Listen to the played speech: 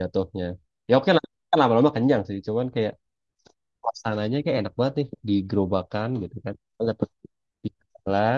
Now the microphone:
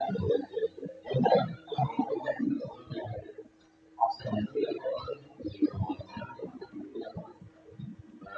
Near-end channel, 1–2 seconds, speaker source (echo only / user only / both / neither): echo only